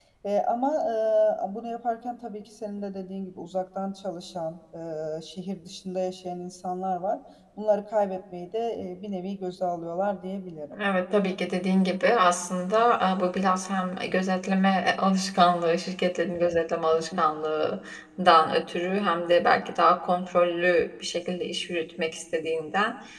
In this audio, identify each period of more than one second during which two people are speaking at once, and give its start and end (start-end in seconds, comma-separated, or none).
none